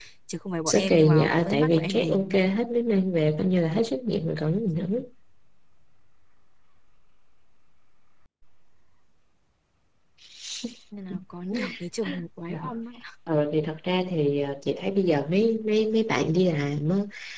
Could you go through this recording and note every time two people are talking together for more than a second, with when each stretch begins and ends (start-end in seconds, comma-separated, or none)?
0.7-2.4